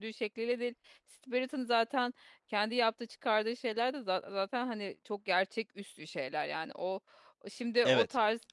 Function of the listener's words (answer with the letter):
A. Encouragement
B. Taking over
B